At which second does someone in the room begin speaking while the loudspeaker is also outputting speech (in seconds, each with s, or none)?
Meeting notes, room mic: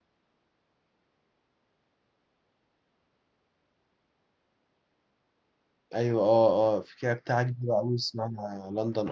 5.9 s